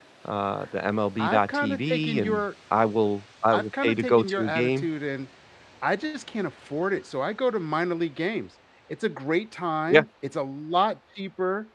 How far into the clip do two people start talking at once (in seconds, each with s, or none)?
1.2 s